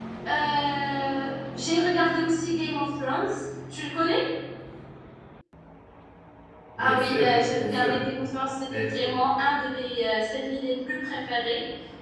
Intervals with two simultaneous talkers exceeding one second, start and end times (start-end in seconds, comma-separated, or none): 6.8-8.0